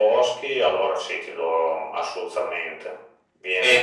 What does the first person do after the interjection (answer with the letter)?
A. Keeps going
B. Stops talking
B